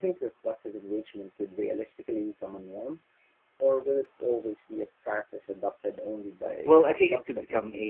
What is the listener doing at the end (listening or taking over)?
taking over